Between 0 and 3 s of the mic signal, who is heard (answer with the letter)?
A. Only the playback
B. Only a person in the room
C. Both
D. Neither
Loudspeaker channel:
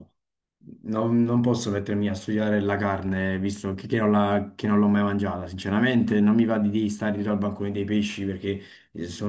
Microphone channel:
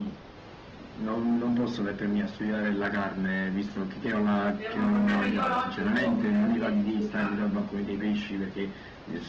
A